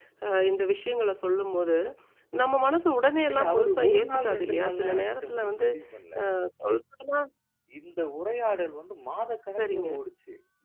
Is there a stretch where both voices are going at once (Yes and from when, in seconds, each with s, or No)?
Yes, from 3.3 s